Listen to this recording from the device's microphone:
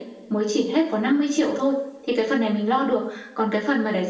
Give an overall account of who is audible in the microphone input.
echo only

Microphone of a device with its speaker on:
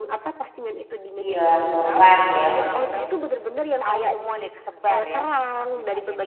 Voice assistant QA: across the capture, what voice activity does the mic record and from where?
both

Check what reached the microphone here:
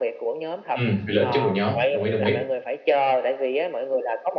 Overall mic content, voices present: both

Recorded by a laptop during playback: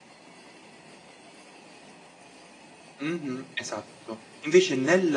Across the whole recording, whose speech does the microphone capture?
user only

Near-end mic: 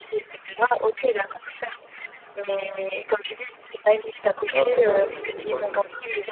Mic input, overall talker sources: both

